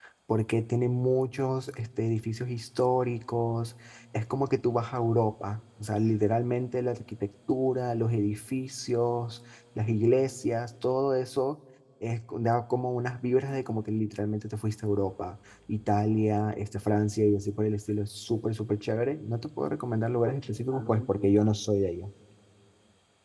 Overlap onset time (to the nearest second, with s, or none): none